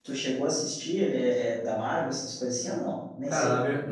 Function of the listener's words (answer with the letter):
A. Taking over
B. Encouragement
A